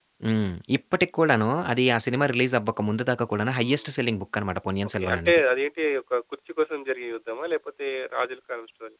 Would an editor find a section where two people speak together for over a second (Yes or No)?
No